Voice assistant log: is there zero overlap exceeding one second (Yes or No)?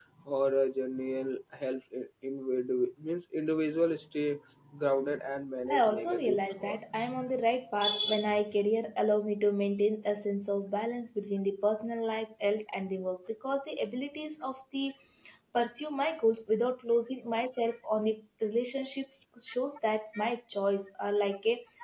No